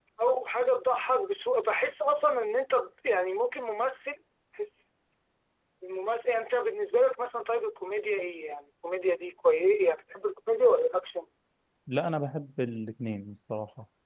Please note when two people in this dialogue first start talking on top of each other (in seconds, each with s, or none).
none